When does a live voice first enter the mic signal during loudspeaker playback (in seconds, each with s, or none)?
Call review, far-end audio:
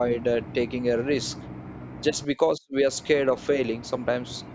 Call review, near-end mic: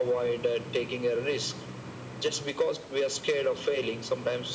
none